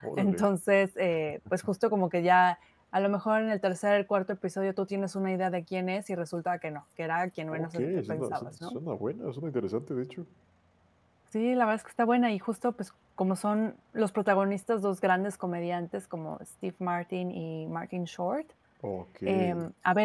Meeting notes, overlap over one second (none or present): present